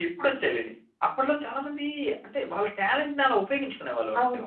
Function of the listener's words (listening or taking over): taking over